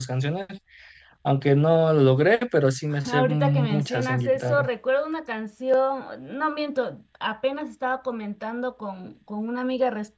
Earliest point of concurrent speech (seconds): 2.9 s

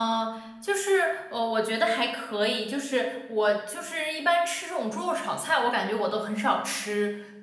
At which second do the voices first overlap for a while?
none

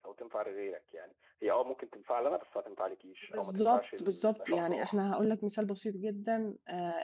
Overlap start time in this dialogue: 3.3 s

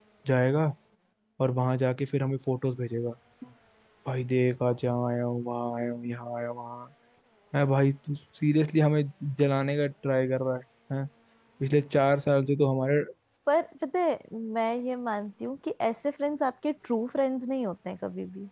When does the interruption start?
none

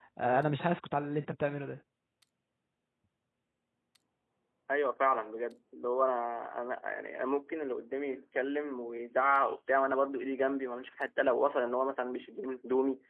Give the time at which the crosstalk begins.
none

